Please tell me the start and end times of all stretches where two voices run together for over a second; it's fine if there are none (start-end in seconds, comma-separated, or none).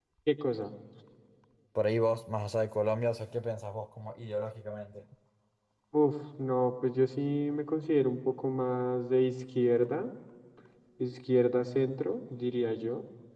none